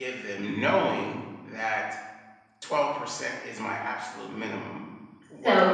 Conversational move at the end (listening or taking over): taking over